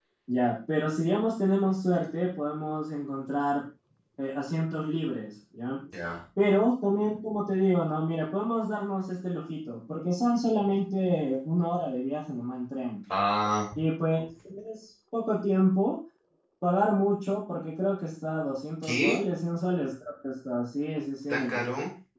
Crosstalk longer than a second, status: none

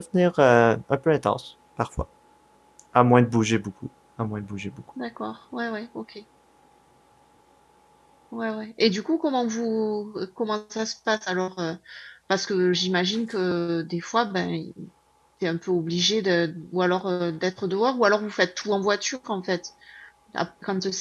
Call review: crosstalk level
none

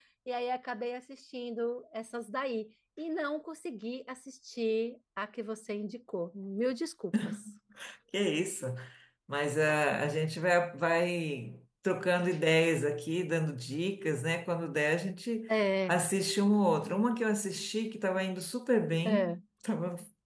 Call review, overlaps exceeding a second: none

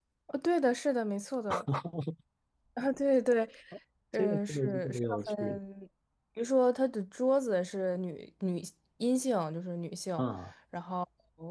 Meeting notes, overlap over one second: present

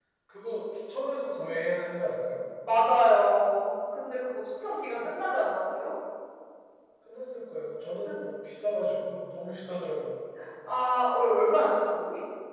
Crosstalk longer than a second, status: none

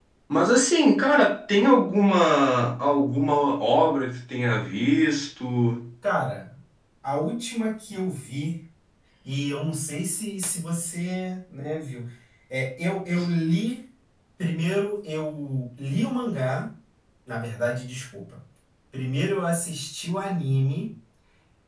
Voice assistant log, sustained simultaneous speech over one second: none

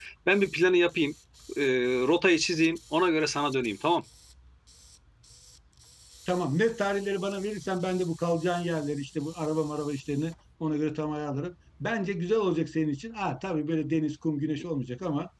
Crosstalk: none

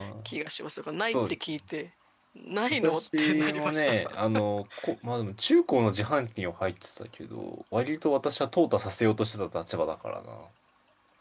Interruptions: present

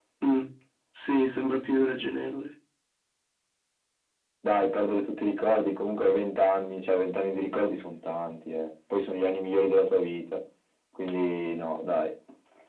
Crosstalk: none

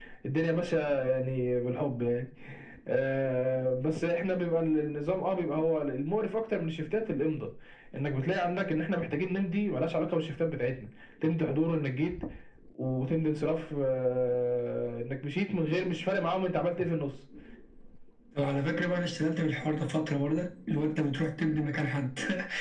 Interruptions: none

